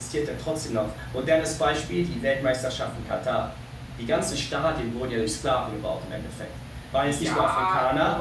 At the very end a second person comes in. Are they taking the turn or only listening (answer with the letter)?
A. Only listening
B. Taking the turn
B